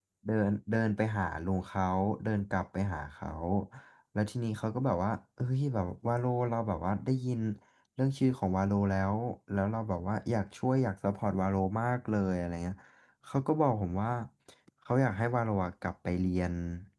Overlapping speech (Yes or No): No